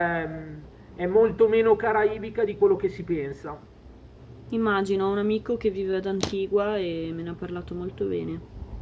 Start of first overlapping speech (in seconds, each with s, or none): none